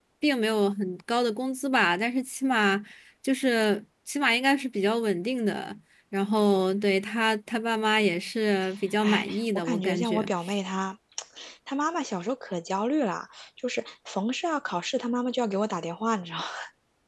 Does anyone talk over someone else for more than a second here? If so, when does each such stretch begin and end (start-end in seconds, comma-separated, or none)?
9.0-10.3